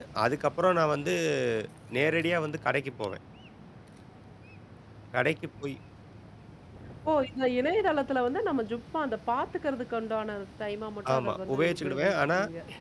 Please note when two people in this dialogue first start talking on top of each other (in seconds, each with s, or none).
11.1 s